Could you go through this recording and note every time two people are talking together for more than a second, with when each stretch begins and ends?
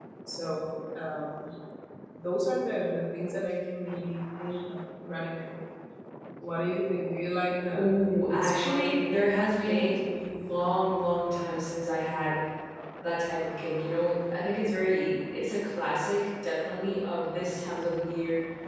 7.7-9.1

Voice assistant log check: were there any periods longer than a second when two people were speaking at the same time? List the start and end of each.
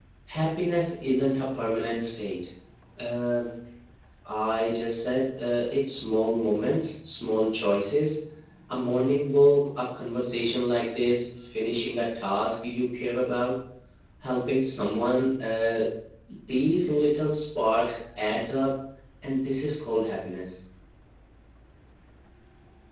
none

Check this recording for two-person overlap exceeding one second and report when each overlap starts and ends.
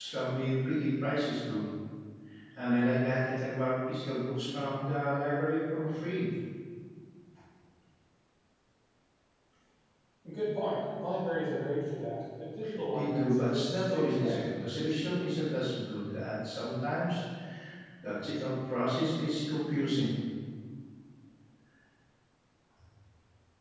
12.9-14.5

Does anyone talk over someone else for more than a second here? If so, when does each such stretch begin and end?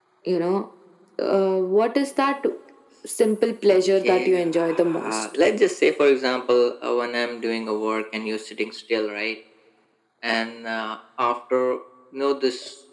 3.7-5.3

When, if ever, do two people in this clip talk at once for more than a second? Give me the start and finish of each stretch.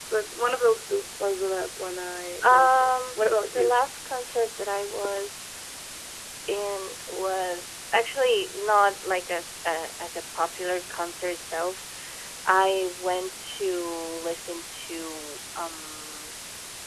2.4-3.7

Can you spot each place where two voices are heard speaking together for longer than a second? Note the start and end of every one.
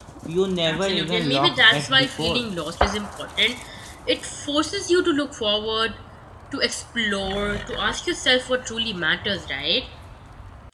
0.7-2.5

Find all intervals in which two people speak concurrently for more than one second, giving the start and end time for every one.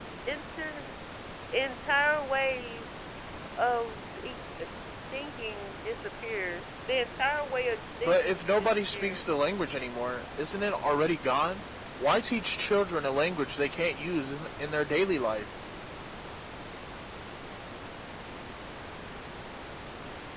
8.0-9.2

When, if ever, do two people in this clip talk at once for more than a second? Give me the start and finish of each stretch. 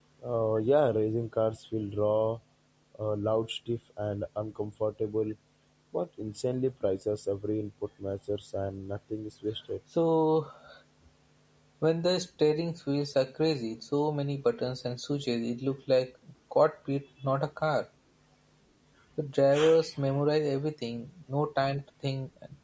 none

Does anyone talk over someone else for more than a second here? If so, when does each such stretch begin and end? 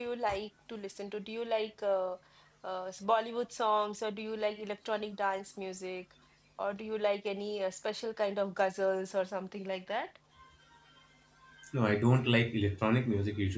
none

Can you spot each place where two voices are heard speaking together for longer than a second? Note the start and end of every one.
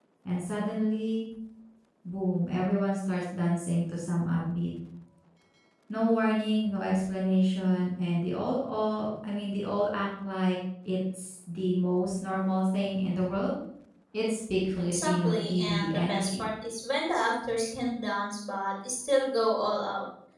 14.9-16.5

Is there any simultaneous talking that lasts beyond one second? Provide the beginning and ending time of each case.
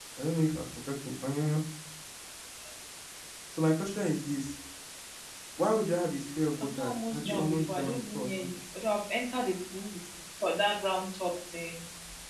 6.6-8.5

